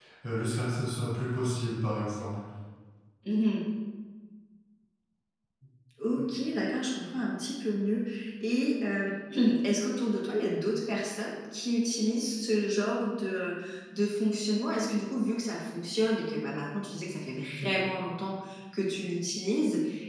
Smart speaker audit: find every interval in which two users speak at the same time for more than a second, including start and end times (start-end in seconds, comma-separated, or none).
none